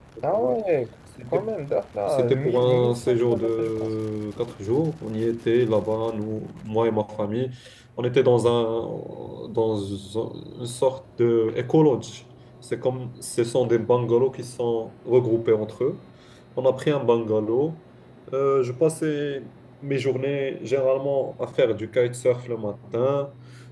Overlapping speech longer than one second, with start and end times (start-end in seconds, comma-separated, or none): 2.1-3.9